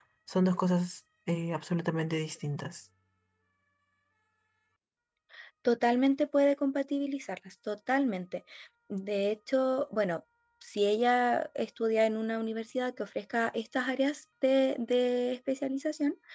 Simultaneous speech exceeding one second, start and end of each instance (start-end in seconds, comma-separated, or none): none